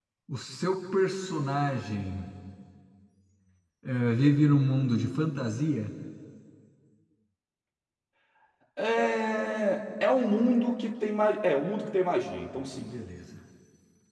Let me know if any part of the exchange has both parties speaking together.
No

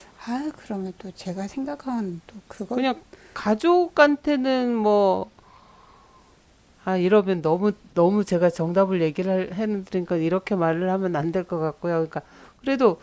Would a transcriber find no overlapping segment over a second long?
Yes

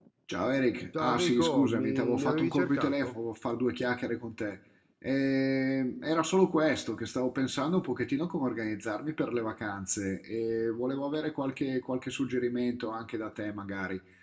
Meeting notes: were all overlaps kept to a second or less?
No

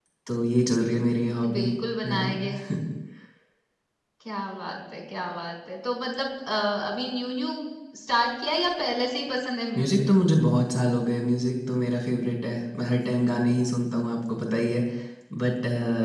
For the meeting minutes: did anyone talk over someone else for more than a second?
No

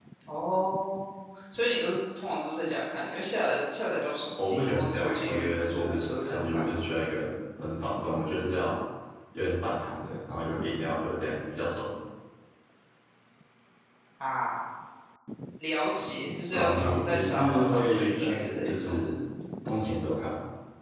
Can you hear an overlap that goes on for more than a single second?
Yes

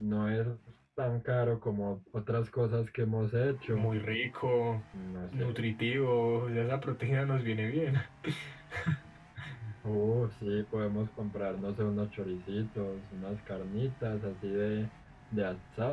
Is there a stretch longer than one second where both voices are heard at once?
No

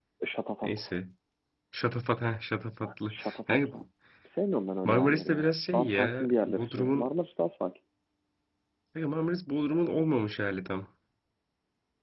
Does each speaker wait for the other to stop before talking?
No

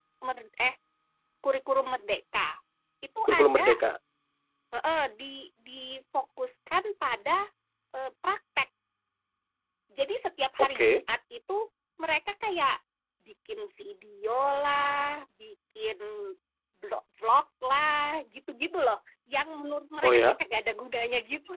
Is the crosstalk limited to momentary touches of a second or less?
Yes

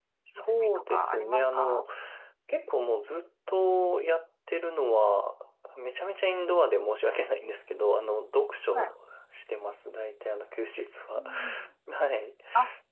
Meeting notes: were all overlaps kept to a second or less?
No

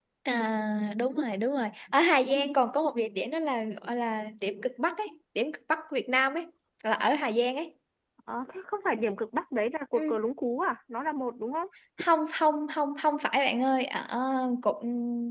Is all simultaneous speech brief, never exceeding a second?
Yes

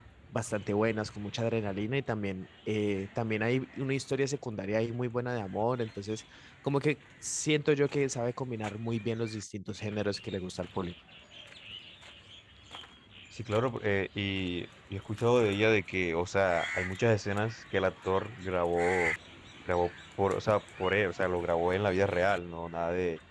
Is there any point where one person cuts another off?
No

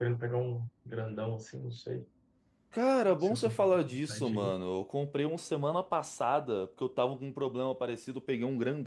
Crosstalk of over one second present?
Yes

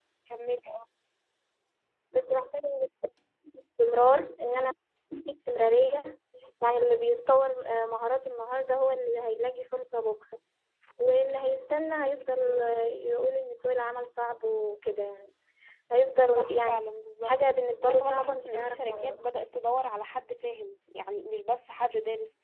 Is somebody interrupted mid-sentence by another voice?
Yes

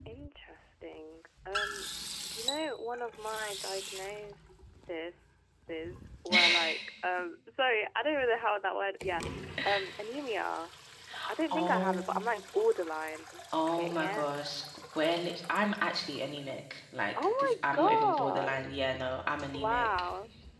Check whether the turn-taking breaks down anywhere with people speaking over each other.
Yes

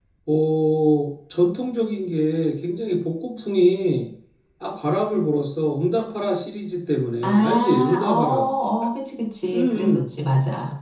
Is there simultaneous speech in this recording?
Yes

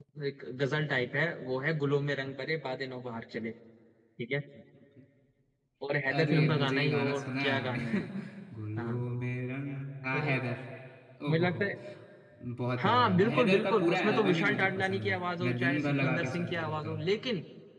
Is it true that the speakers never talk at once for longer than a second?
No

